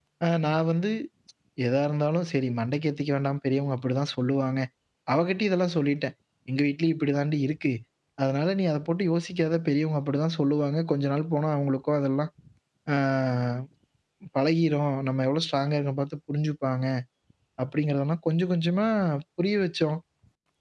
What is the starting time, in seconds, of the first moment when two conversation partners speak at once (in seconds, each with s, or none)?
none